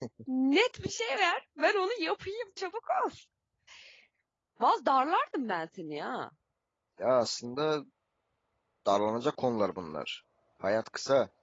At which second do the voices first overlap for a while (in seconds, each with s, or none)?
none